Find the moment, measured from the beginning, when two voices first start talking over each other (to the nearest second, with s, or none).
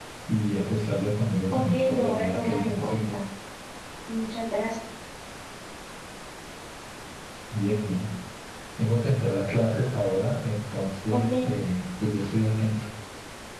1 s